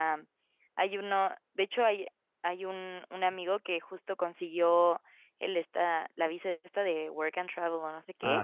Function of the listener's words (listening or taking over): listening